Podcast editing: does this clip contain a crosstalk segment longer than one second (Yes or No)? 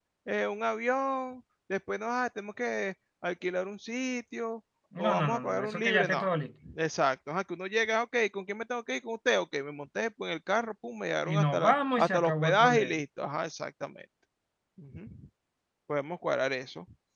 Yes